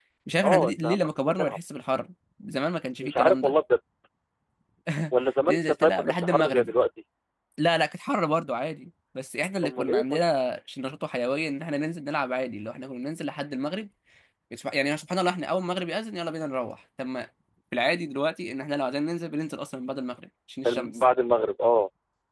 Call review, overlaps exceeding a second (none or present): present